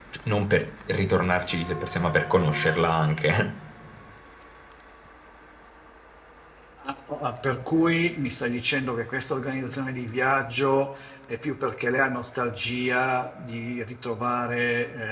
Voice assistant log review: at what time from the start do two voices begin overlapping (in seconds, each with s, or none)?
none